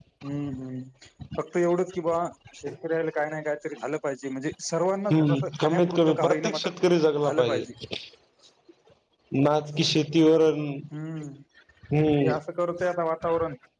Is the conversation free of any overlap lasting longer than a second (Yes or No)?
No